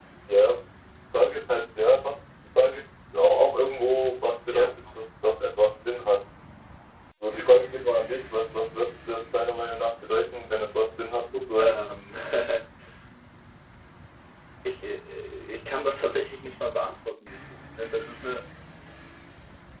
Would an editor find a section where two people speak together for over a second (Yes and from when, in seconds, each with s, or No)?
No